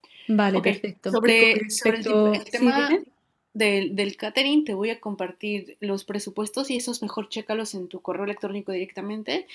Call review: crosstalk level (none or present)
present